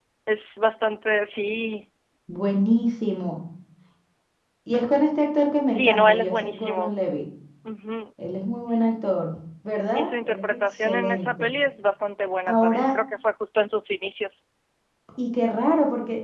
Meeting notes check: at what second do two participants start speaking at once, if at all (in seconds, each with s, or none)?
5.7 s